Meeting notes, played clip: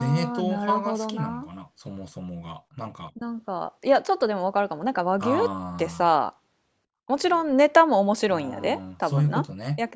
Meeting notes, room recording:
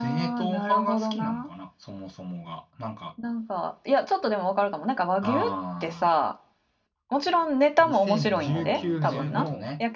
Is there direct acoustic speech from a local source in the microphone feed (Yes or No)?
Yes